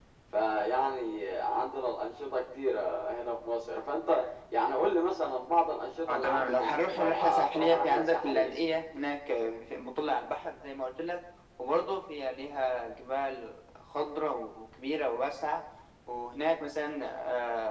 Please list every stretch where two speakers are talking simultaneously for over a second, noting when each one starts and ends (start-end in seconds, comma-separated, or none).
6.1-8.6